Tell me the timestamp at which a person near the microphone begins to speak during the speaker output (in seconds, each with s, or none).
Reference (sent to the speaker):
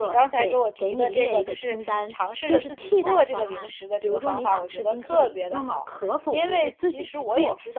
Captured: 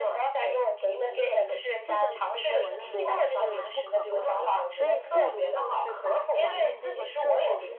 1.8 s